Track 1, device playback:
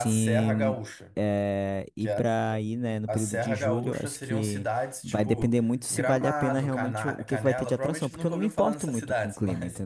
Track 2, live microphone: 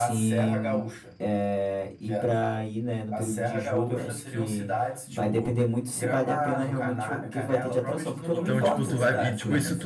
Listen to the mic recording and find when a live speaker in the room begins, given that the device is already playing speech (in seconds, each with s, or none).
8.3 s